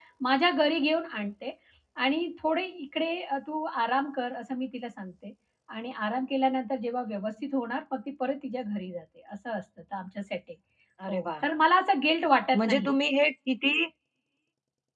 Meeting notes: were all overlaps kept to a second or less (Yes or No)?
Yes